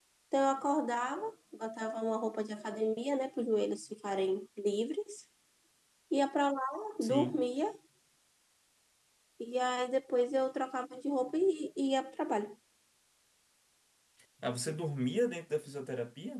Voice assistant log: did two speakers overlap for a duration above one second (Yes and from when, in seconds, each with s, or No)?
No